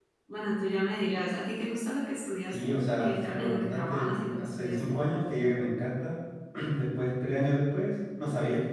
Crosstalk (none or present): present